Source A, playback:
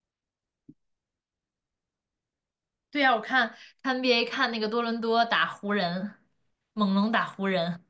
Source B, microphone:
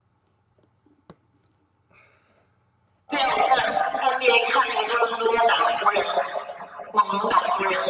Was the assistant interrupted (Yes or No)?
Yes